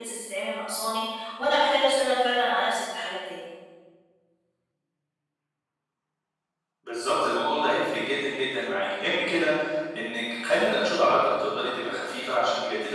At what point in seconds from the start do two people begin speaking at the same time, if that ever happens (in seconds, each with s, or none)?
none